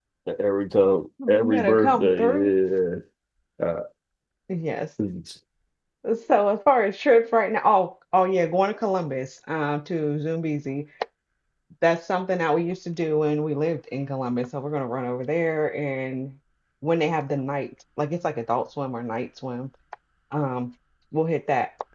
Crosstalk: present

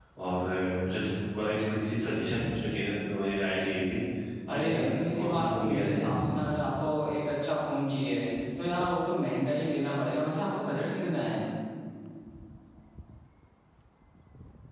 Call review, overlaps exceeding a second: present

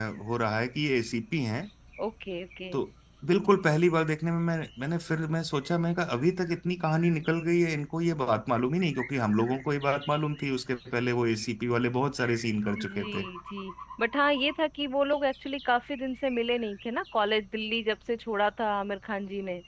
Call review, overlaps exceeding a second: none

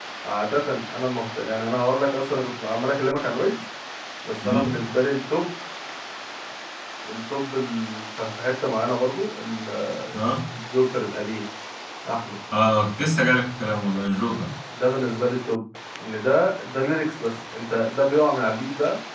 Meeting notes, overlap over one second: none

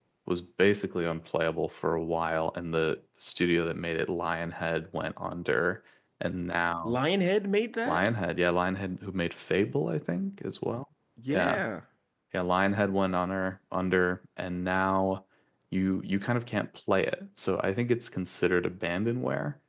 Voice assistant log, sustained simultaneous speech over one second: none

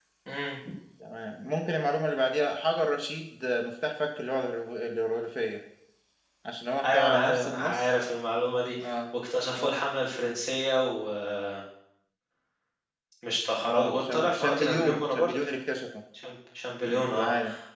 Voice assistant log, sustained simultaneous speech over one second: present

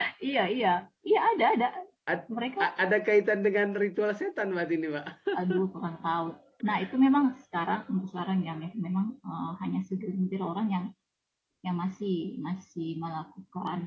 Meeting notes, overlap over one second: none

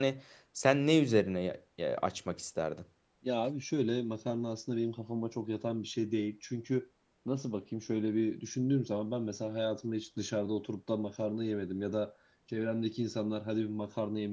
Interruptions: none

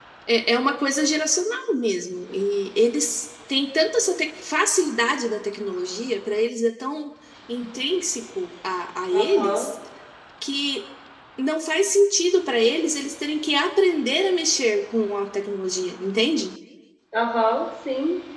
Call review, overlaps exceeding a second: none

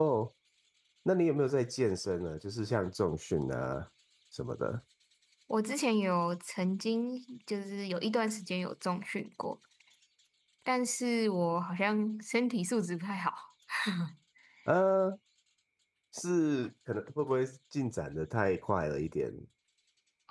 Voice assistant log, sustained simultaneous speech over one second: none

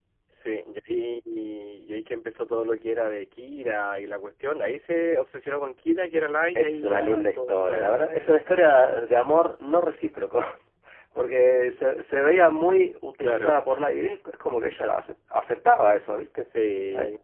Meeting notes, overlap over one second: present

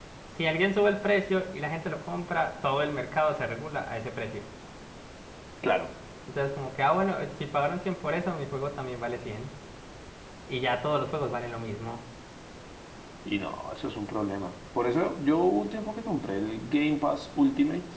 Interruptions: none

